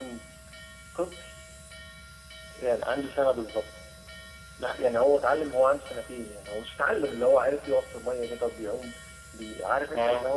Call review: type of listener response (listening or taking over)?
listening